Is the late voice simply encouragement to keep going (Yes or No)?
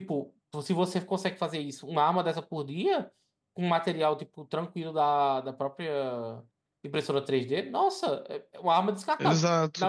Yes